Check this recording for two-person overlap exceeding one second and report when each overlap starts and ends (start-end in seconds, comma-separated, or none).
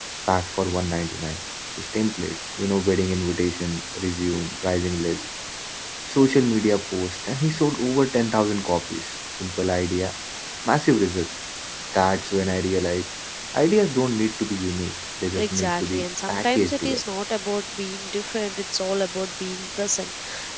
15.3-17.0